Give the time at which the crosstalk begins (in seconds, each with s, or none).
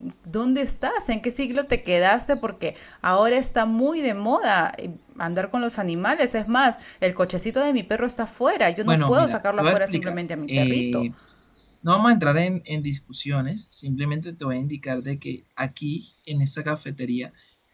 8.8 s